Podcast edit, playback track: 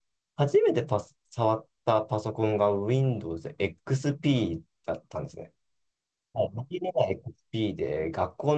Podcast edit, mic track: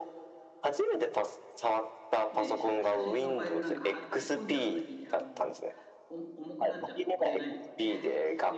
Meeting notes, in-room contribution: present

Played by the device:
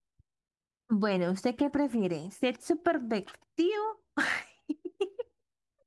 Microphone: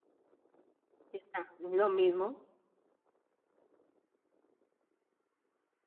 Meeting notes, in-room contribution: present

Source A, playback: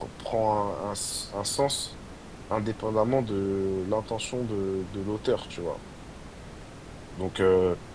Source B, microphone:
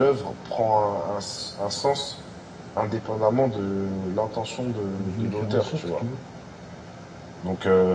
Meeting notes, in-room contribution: present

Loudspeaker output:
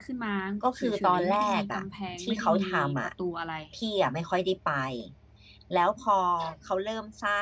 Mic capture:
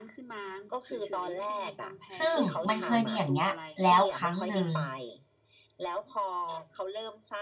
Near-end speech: present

